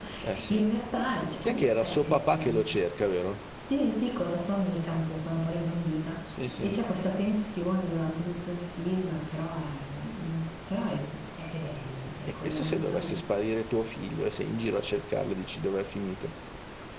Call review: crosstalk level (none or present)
present